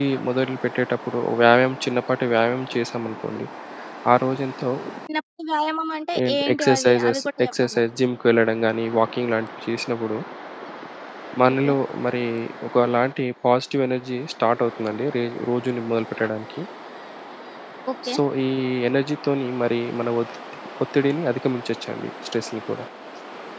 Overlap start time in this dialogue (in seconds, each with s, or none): 6.2 s